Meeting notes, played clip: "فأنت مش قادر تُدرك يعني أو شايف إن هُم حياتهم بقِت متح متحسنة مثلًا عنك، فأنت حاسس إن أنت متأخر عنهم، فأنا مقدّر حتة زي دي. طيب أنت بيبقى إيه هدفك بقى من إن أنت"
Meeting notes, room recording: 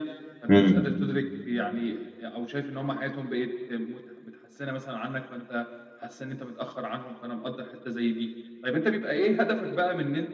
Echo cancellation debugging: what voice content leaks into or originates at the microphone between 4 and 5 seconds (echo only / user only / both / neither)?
echo only